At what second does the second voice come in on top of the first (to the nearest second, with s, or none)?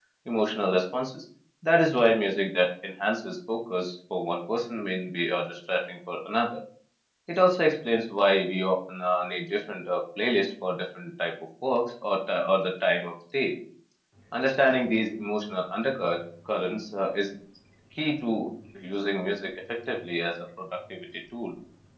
none